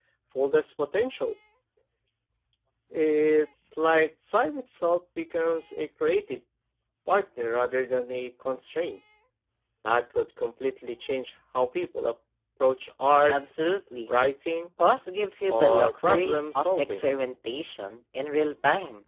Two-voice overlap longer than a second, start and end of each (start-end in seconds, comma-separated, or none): 15.5-17.1